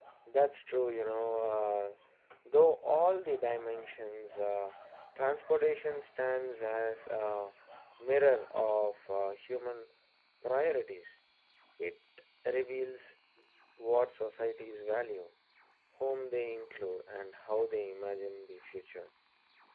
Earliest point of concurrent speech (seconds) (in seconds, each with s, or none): none